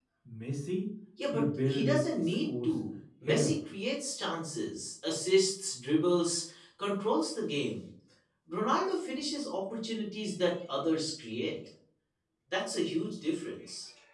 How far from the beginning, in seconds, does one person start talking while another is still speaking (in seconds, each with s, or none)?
1.3 s